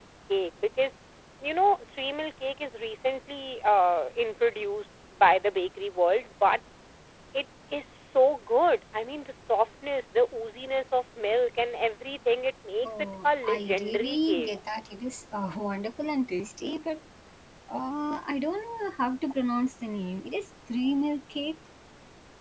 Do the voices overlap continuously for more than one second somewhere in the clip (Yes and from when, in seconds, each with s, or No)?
Yes, from 12.8 s